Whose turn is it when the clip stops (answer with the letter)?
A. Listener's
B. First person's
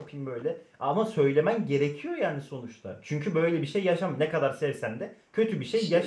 A